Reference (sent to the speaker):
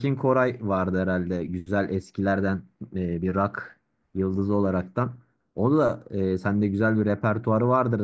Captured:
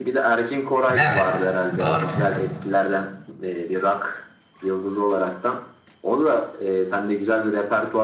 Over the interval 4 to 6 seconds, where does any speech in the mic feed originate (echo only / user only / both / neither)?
echo only